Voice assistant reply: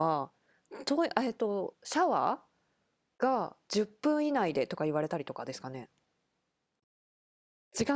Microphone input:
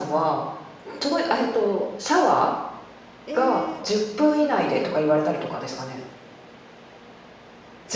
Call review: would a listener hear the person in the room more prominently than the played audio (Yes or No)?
No